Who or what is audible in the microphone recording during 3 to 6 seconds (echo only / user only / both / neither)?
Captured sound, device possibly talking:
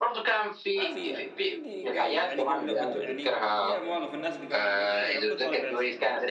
both